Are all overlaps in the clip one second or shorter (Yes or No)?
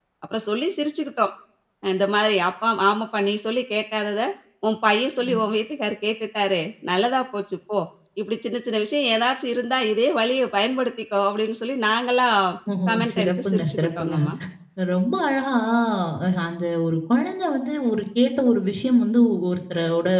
No